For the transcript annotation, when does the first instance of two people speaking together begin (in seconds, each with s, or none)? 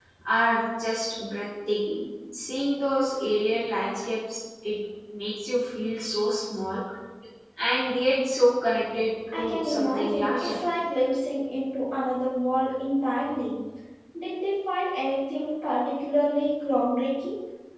9.2 s